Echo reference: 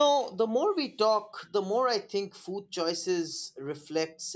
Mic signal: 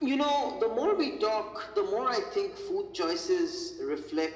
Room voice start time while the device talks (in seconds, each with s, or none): none